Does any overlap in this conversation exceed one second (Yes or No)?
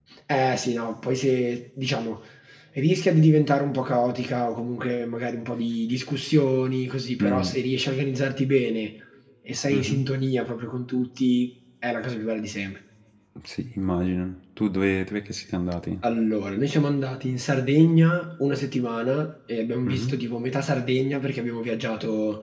No